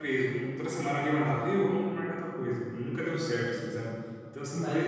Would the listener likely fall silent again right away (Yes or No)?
No